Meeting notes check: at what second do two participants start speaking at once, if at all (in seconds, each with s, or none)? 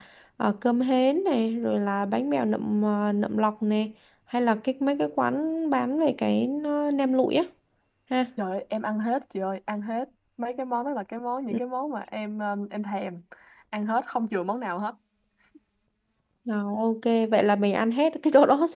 none